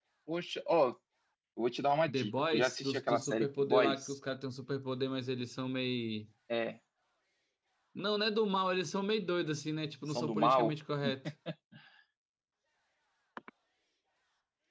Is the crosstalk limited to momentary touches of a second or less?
No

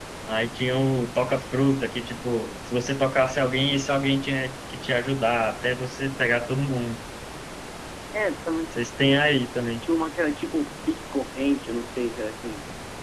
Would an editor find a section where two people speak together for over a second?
No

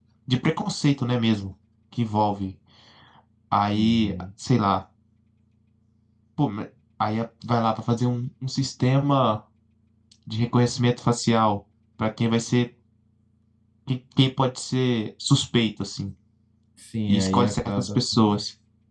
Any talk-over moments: Yes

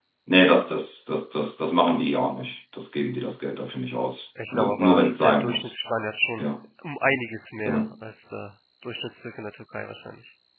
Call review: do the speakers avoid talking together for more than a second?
No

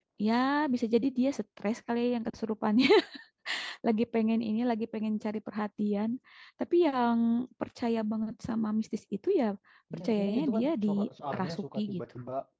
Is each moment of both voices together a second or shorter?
No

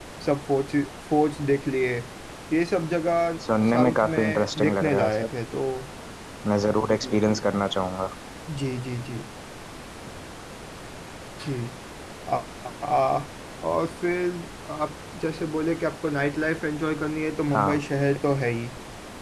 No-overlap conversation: No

